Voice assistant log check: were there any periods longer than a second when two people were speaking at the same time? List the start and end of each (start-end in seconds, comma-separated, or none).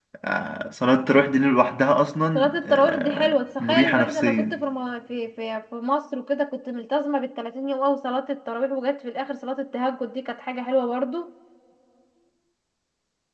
2.4-4.6